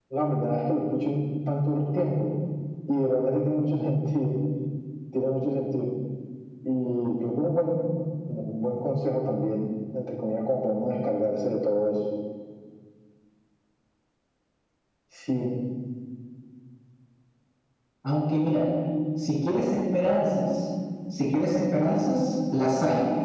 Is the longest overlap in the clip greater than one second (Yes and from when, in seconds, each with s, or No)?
No